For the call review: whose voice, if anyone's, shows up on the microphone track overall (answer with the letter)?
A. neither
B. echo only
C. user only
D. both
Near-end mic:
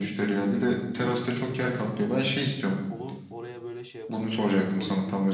D